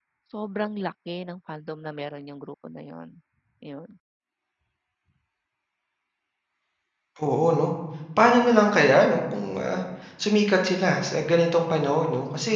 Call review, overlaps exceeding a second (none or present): none